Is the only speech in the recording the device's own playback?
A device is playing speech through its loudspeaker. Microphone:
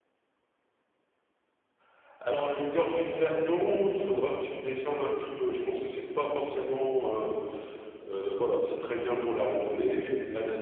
Yes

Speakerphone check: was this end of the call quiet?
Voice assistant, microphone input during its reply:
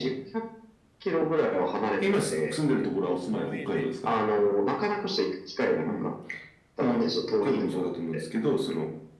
No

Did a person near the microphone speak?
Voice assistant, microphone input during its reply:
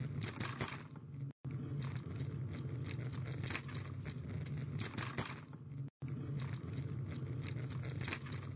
No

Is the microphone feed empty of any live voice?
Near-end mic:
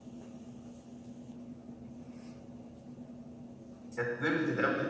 No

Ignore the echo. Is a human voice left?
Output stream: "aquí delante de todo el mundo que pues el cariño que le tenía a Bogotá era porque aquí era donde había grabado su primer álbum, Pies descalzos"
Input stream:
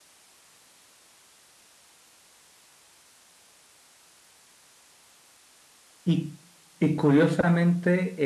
Yes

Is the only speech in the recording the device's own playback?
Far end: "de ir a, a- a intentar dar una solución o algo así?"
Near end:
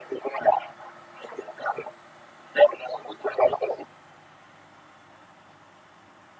Yes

